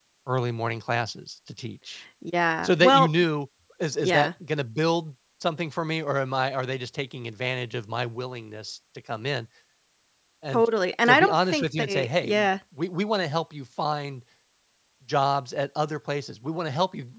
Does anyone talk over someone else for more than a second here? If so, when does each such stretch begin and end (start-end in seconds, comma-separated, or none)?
11.1-12.3